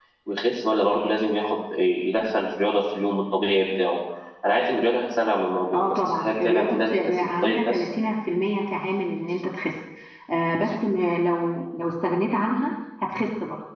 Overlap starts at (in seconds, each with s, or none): 5.7 s